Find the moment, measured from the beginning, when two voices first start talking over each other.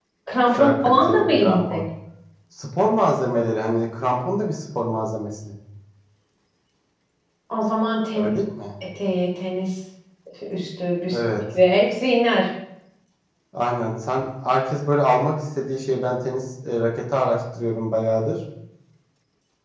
0.6 s

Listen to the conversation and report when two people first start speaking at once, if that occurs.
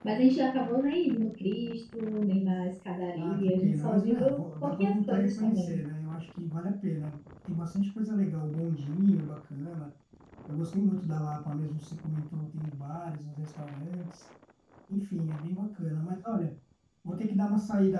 3.1 s

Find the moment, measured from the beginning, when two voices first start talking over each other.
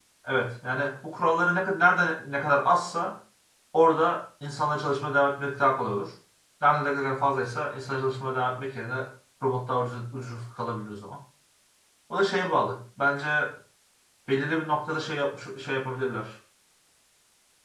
none

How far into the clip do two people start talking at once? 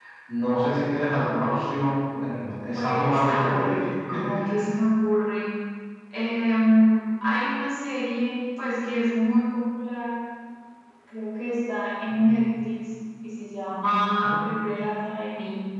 2.2 s

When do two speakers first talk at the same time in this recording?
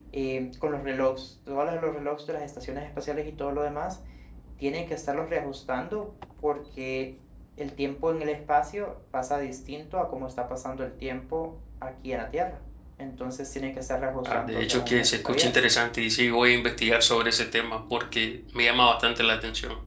14.2 s

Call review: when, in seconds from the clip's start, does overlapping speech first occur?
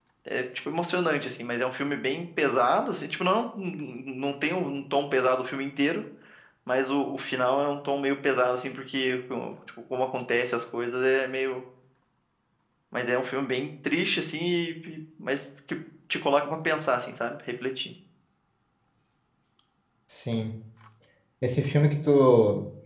none

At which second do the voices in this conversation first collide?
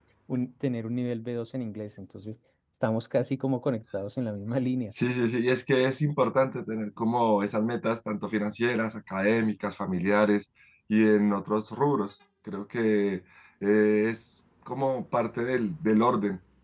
none

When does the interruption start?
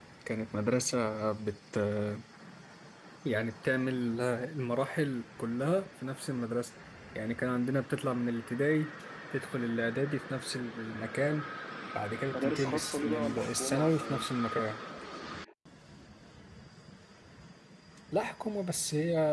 12.3 s

